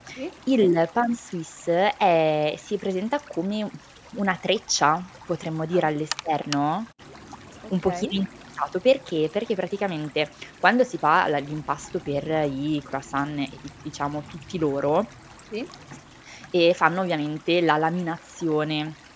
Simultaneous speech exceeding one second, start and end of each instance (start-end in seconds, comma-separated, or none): none